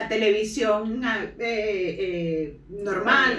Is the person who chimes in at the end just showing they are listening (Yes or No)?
Yes